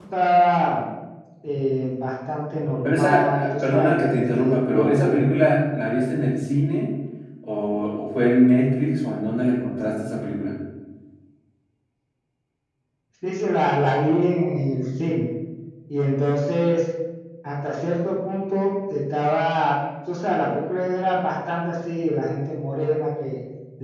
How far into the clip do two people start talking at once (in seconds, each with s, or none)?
2.8 s